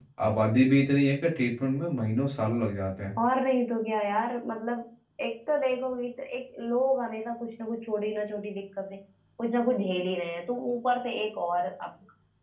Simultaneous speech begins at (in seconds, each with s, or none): none